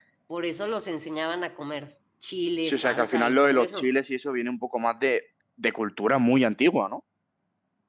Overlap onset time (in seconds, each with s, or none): 2.6 s